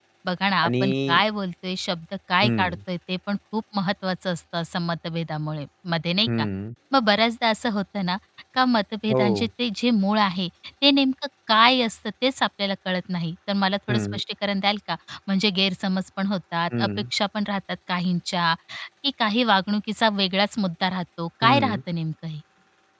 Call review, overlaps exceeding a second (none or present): none